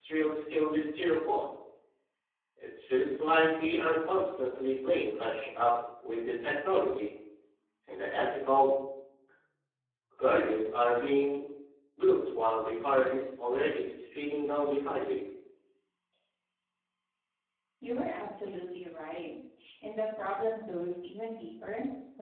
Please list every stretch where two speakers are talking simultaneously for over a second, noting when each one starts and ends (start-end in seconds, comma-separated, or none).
none